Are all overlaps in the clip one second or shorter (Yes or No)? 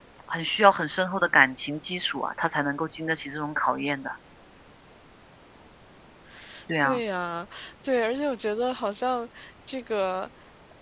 Yes